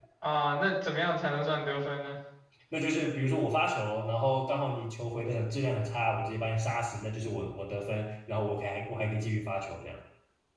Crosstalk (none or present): none